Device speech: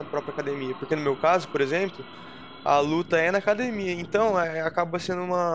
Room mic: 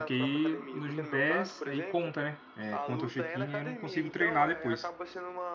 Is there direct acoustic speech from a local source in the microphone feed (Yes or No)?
Yes